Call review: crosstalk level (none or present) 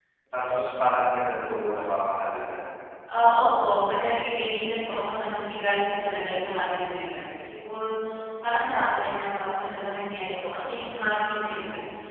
none